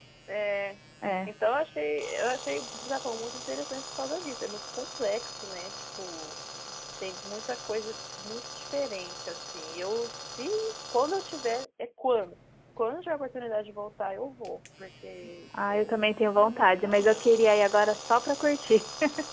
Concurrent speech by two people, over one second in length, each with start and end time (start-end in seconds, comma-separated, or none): 15.7-17.2